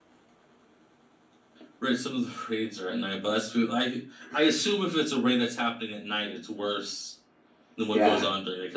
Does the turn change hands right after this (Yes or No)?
No